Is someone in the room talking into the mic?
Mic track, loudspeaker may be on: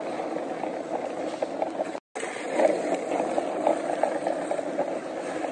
No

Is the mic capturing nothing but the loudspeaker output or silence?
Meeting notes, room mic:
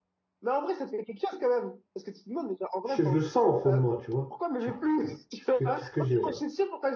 No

